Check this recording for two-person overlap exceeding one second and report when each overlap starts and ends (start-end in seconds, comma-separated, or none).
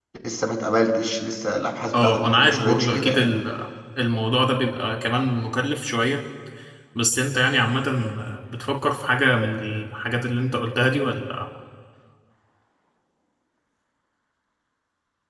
1.9-3.3